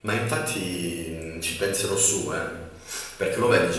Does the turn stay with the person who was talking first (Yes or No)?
Yes